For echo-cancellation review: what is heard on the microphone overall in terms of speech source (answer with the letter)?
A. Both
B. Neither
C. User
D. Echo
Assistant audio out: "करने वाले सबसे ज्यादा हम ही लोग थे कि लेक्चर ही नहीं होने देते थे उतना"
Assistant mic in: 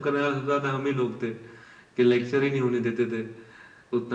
D